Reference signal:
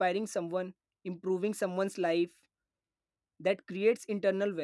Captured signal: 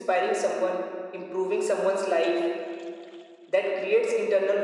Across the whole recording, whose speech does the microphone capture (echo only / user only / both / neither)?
echo only